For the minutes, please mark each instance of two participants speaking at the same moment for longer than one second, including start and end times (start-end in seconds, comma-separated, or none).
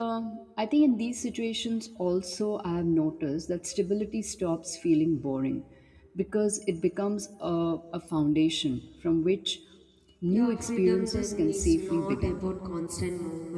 10.3-12.4